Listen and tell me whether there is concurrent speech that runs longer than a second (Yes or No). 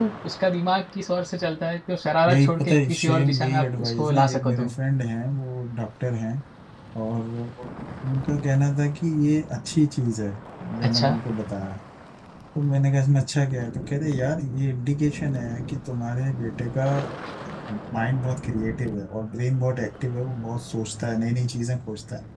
Yes